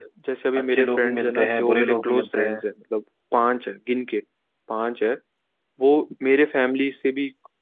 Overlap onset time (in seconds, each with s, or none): 0.6 s